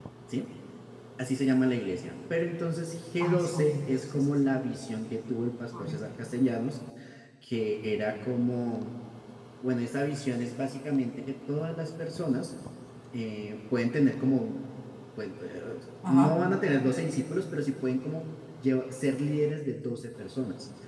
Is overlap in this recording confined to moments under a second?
No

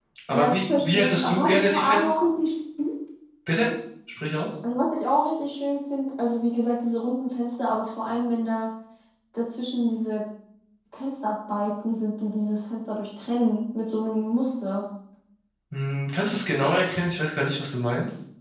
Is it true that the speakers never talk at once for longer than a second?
No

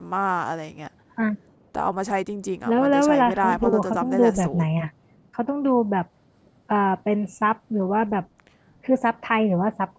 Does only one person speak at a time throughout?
No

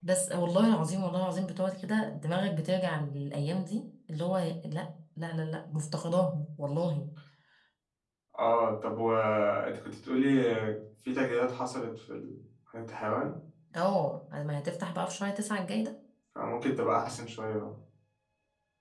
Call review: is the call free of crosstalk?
Yes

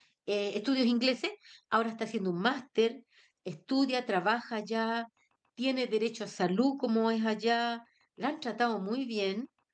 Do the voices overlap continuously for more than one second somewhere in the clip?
No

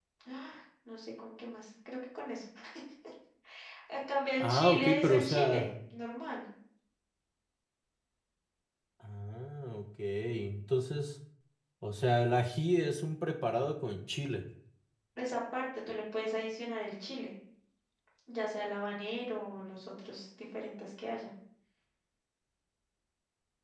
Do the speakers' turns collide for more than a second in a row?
Yes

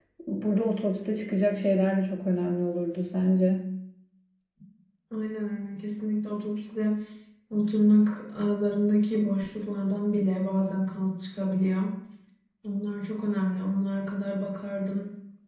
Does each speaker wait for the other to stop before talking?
Yes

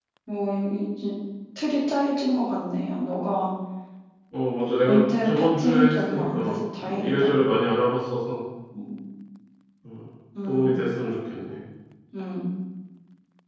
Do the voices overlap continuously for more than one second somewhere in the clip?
Yes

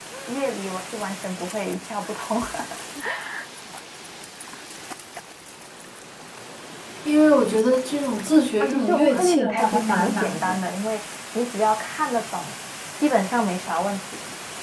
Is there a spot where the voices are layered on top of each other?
Yes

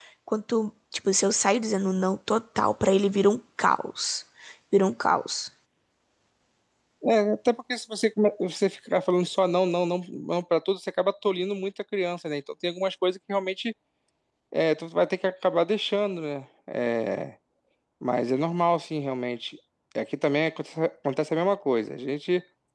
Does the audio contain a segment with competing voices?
No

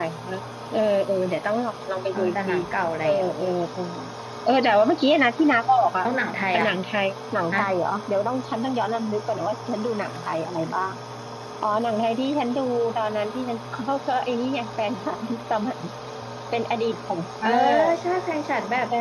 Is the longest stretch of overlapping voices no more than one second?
Yes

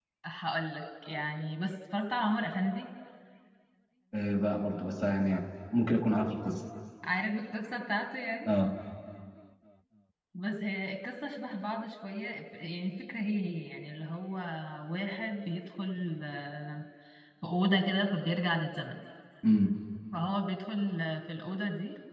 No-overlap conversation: Yes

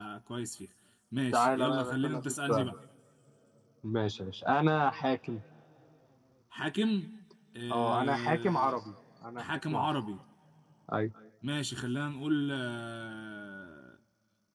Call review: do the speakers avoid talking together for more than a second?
No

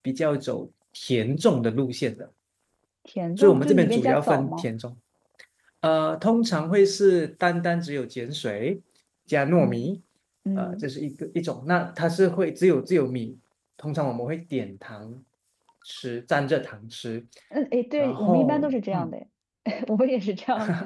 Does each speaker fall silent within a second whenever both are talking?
No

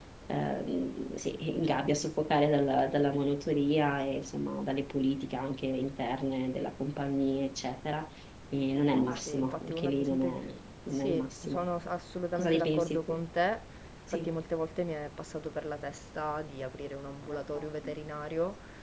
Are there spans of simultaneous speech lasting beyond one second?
Yes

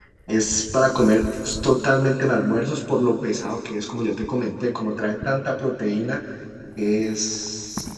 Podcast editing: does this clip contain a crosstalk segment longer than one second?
No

